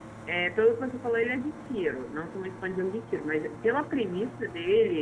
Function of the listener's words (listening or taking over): listening